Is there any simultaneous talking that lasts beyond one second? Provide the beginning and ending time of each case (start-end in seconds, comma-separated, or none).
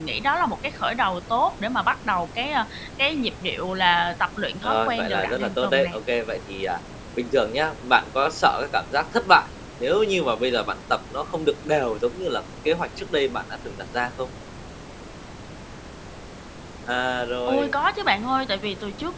4.6-5.9